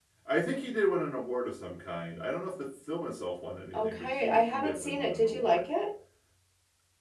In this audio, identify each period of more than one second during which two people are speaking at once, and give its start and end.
3.7-5.7

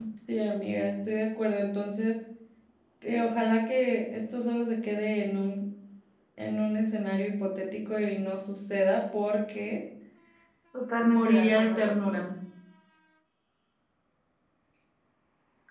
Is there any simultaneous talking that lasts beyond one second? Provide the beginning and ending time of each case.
11.0-12.3

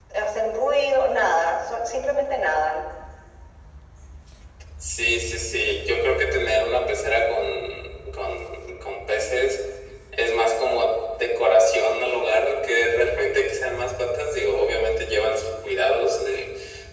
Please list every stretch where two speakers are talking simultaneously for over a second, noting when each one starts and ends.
none

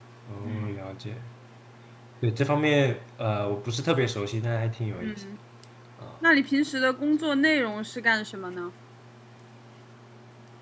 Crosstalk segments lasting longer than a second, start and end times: none

